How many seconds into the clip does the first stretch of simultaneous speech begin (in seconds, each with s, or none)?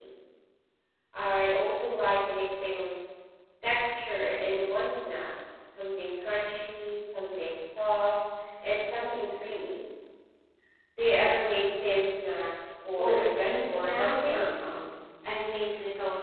13.0 s